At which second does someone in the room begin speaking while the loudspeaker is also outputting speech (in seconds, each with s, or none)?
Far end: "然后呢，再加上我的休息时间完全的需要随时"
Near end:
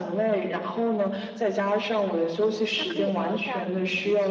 2.7 s